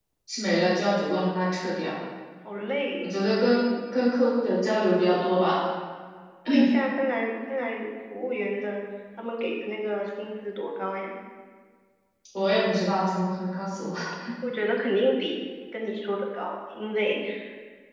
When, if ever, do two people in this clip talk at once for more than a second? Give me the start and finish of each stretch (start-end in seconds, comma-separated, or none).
none